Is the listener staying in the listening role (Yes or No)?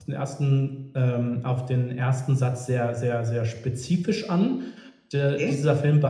Yes